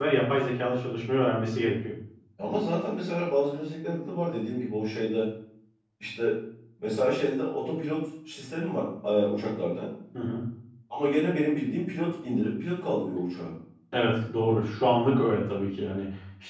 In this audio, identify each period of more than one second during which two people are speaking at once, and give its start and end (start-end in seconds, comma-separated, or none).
none